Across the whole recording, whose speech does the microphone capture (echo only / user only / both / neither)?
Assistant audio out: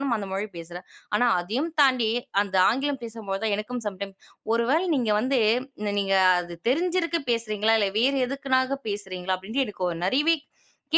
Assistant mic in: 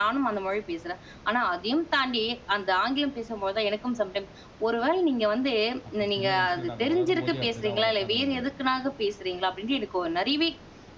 both